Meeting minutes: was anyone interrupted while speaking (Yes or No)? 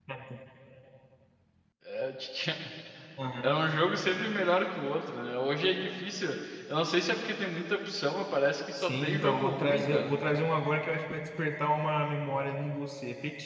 Yes